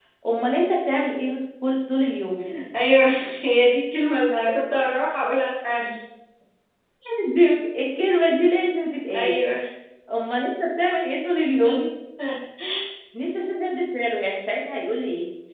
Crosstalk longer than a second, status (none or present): none